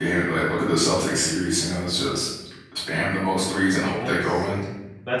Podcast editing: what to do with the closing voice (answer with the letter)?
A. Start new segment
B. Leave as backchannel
A